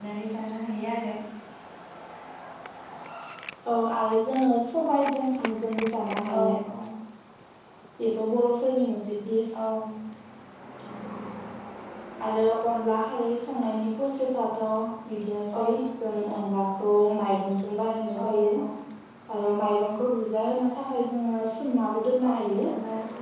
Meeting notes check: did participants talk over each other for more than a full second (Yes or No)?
No